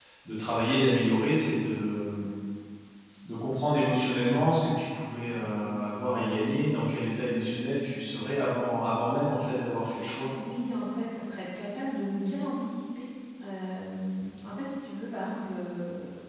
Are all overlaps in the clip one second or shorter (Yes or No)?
Yes